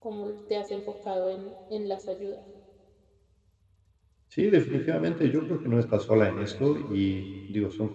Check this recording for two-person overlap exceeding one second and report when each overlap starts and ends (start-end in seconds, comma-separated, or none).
none